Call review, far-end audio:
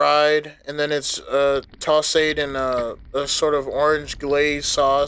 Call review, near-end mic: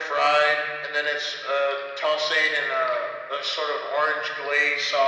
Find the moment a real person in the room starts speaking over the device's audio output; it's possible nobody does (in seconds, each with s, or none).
none